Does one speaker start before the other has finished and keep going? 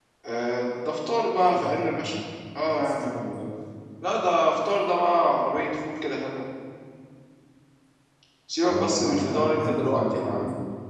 Yes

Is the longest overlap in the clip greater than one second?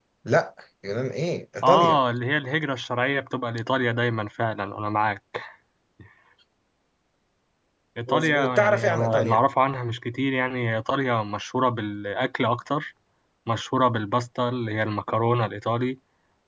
Yes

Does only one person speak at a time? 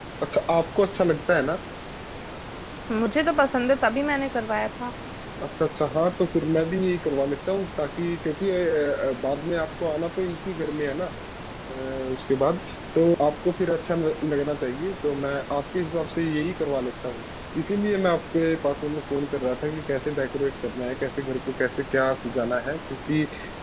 Yes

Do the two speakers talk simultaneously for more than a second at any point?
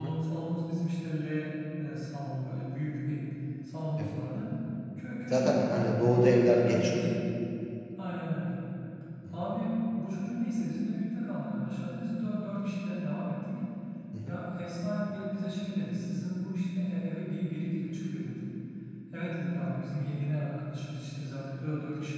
Yes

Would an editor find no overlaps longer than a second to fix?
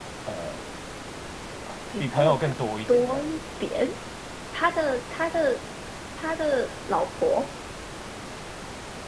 No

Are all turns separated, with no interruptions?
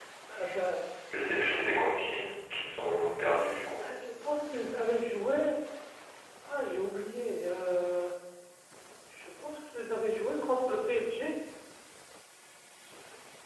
Yes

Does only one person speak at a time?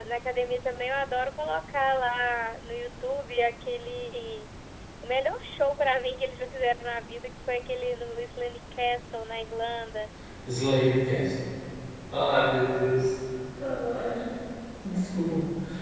Yes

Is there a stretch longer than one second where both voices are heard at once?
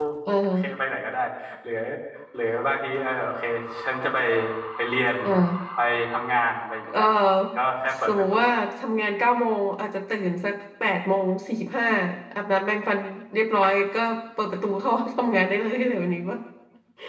No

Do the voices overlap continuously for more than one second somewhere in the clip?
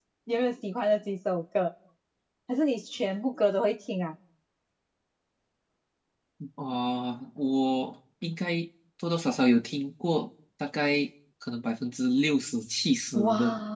No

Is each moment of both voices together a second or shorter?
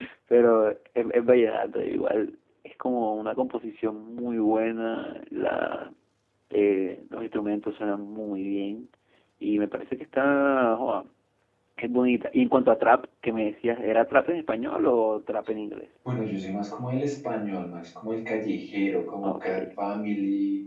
Yes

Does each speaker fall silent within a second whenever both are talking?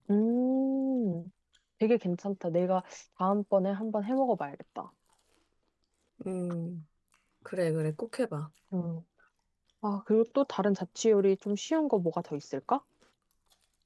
Yes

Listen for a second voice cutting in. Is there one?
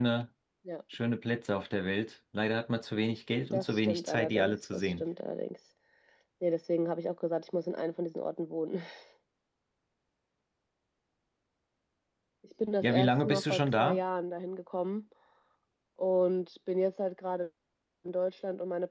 Yes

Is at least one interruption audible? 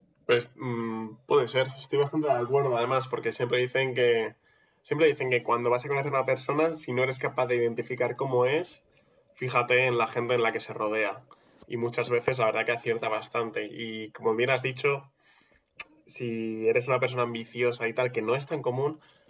No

